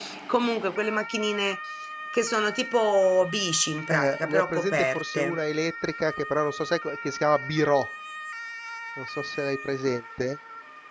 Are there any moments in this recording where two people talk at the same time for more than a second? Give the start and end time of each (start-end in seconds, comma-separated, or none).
3.9-5.4